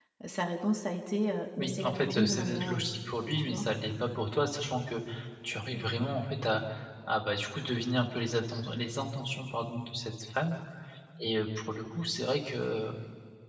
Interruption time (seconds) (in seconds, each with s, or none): 1.6 s